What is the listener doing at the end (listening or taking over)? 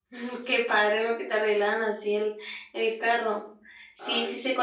listening